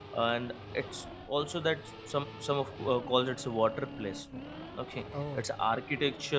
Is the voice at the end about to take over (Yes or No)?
No